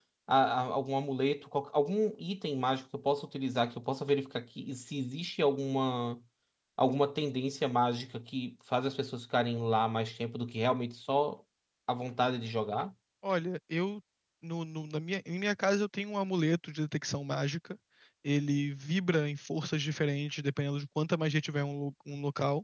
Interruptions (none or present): none